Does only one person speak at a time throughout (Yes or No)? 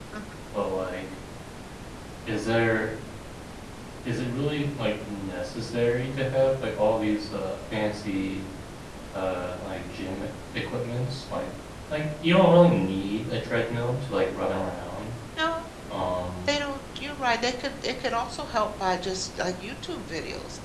Yes